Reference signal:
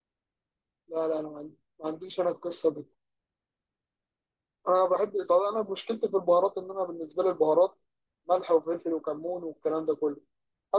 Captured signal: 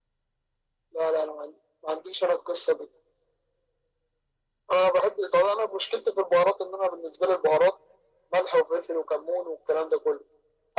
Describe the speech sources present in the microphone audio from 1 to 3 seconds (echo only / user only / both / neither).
echo only